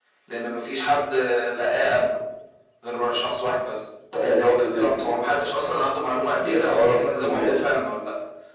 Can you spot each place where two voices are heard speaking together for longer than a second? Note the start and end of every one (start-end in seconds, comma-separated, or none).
6.4-7.6